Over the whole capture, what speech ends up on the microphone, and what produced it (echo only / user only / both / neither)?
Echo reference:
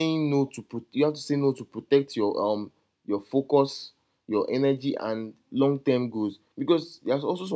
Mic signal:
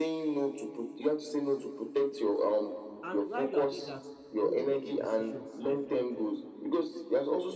both